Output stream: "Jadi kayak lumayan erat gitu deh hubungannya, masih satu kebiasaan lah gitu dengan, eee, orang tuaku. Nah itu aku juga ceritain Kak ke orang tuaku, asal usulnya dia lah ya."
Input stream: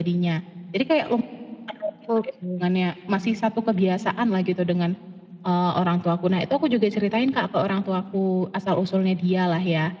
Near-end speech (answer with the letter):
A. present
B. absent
A